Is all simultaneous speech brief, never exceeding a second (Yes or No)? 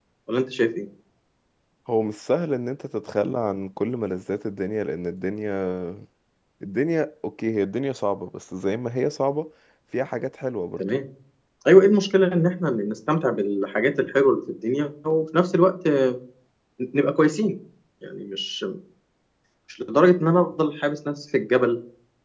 Yes